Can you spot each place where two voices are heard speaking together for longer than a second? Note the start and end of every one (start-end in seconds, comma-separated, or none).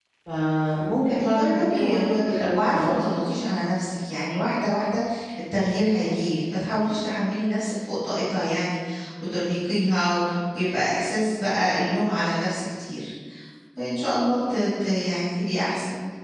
1.2-3.0